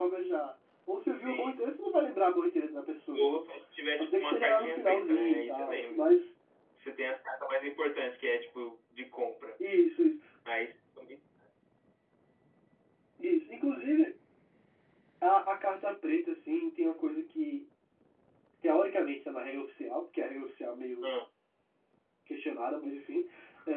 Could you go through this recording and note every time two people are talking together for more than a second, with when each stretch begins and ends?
4.0-6.0

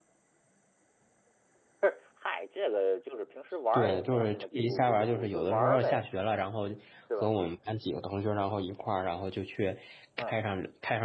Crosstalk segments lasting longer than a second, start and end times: 3.7-6.0

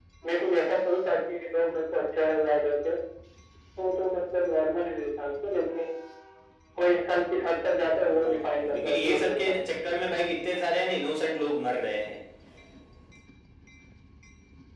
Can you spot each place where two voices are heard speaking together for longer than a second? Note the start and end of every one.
7.9-9.6

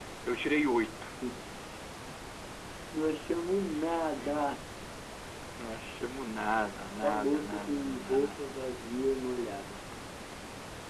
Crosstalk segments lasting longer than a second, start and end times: 7.0-8.4

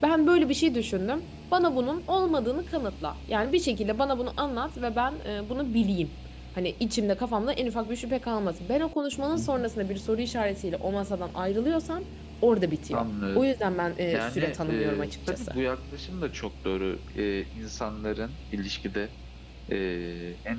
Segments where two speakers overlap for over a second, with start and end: 14.1-15.6

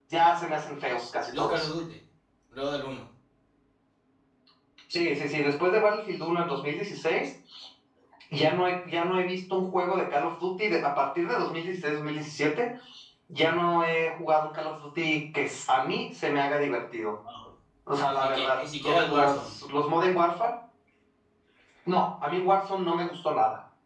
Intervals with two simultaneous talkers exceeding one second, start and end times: 18.1-19.5

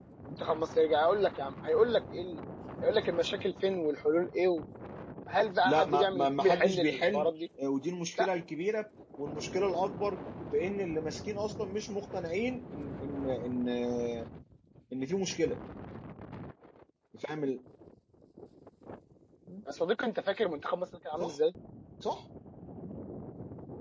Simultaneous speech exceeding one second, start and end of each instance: 5.7-7.2

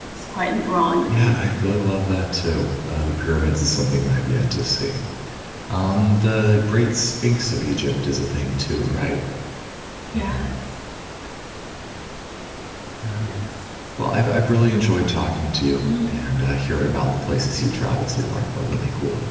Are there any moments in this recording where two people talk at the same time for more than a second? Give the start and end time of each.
none

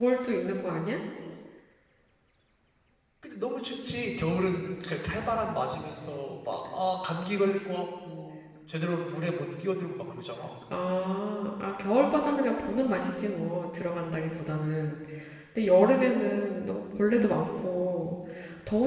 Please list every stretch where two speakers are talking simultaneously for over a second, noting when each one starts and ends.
none

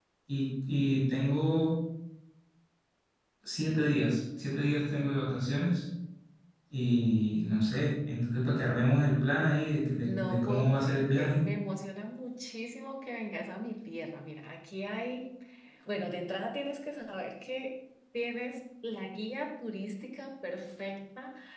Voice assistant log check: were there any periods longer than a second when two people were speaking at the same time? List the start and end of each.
10.0-11.4

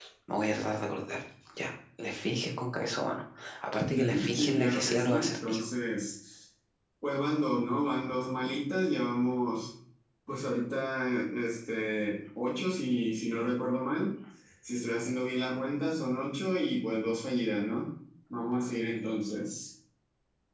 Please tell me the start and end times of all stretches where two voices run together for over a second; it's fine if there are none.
3.9-5.6

